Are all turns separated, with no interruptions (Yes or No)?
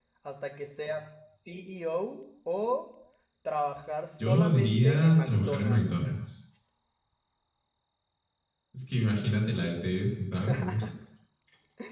No